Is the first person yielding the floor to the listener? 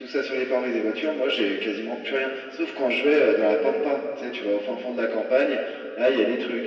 No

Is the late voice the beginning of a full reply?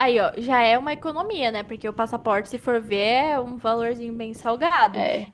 No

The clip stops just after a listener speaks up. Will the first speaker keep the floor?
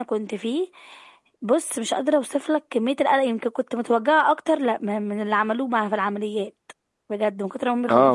No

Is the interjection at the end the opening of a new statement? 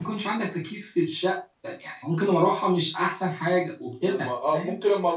Yes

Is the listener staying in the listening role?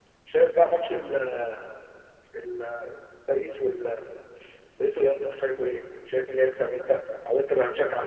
No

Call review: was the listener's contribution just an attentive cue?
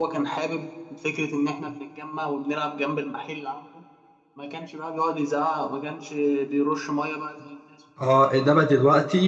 No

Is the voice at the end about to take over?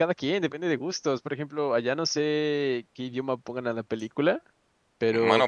Yes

